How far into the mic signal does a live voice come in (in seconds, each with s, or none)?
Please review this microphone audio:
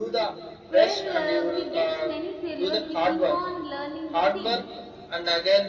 0.7 s